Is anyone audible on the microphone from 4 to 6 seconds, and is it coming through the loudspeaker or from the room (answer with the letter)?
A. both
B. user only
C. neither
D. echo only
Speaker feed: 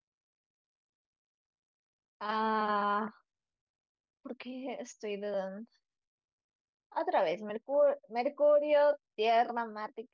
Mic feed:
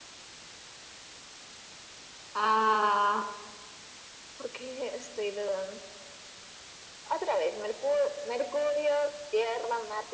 D